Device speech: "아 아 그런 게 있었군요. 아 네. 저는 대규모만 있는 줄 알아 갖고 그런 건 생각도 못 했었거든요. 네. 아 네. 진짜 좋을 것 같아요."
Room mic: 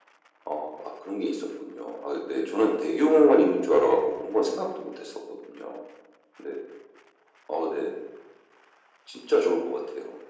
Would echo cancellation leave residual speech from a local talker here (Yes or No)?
No